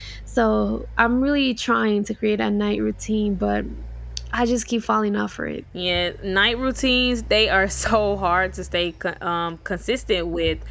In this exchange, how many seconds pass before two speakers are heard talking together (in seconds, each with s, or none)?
none